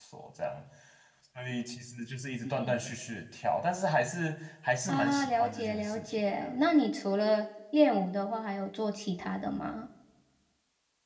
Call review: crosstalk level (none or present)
present